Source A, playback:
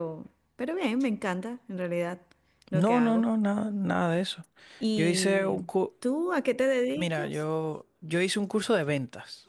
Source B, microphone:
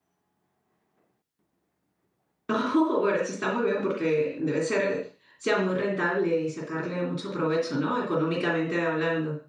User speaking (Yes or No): Yes